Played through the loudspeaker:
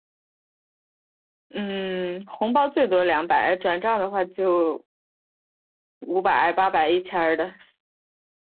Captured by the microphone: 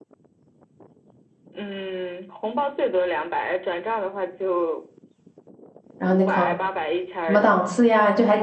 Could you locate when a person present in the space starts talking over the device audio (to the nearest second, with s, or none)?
6 s